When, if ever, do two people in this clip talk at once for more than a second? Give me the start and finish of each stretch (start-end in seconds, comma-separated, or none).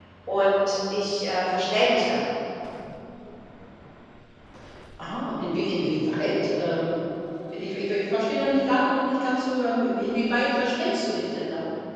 none